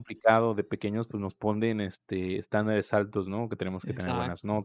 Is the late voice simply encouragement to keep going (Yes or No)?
Yes